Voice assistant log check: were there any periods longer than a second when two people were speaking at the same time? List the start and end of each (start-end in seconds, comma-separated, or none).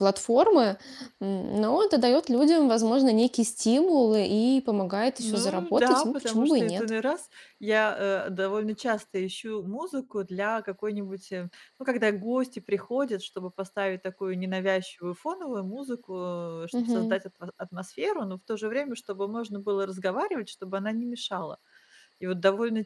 5.2-6.9